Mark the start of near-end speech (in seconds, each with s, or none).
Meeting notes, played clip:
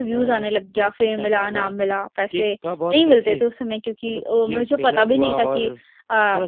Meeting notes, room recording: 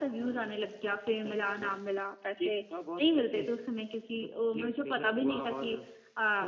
none